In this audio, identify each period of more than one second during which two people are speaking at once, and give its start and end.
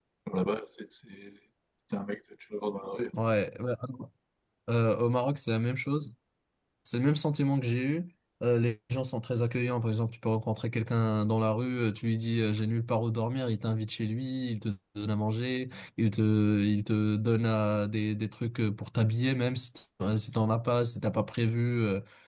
none

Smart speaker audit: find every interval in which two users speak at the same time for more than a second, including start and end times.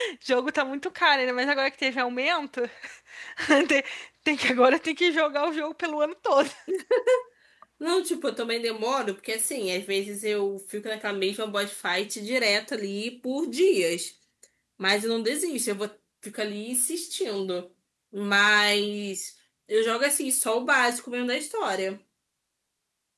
none

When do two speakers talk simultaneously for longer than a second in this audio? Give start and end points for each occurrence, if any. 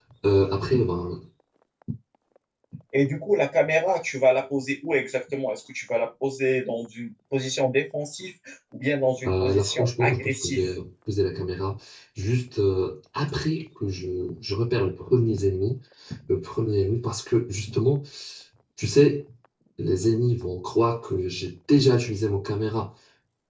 9.3-10.6

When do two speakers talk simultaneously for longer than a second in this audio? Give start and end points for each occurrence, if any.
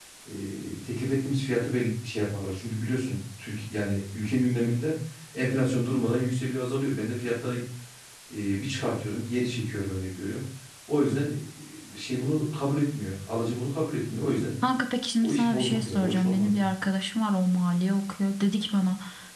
15.2-16.6

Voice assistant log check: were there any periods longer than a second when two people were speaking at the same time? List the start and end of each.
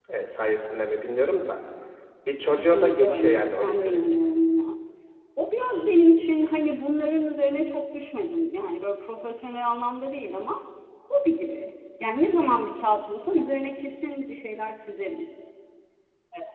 2.5-4.0

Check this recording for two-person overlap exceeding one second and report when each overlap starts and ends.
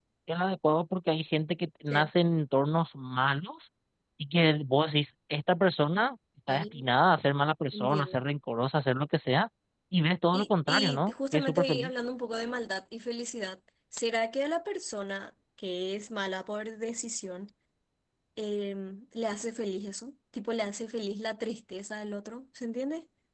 10.3-11.9

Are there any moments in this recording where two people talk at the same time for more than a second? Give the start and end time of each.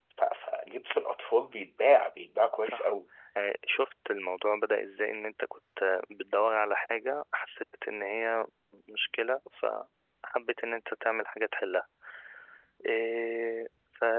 none

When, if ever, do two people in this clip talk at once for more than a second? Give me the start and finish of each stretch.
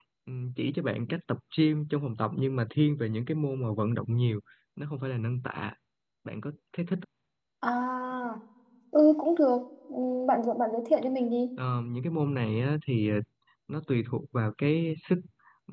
none

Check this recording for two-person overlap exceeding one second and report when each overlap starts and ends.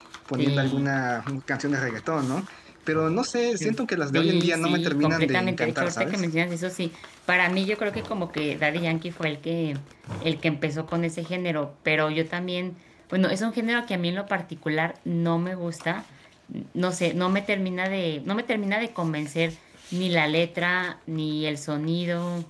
4.1-6.2

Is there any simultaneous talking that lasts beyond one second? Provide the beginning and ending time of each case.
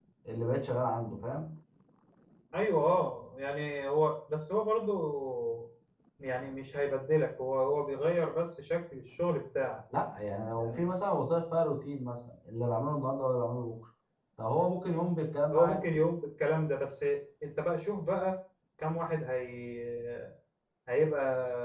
none

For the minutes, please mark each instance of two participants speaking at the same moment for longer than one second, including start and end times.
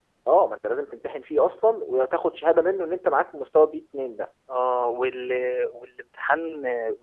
none

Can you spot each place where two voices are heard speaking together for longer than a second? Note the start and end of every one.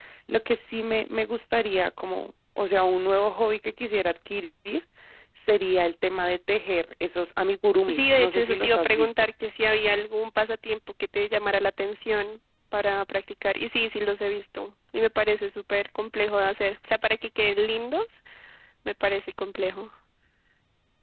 7.9-9.1

